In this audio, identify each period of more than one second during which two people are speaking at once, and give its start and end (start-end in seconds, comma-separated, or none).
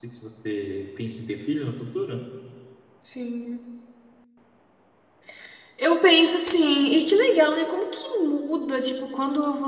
none